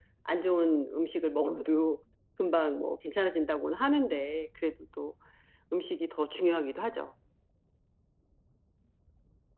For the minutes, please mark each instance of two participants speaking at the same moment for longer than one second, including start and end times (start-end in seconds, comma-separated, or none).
none